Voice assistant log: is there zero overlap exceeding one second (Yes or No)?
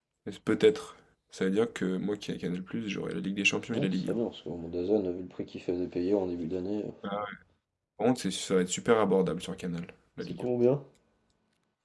Yes